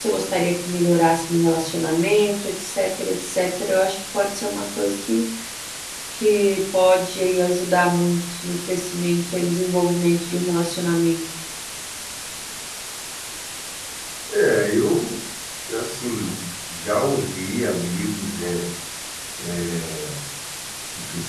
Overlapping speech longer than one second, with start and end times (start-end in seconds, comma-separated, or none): none